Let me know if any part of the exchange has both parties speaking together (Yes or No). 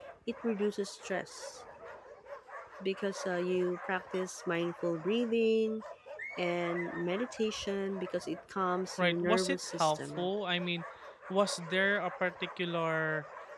Yes